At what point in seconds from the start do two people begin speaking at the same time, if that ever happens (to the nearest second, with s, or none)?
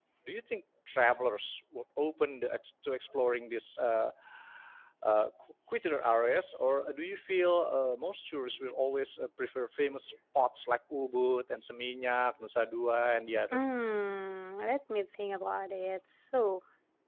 none